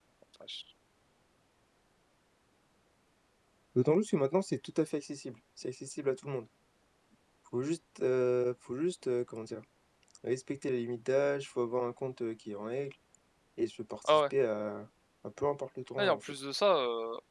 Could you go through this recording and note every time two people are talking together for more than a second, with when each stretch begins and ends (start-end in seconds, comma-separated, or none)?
none